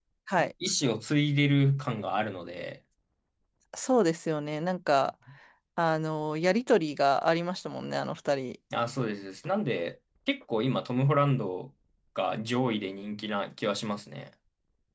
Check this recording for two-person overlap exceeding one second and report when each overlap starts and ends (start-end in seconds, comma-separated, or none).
none